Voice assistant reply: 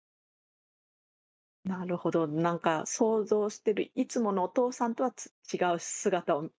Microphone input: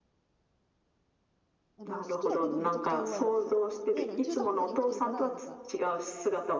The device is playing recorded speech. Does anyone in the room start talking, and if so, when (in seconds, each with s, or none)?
1.8 s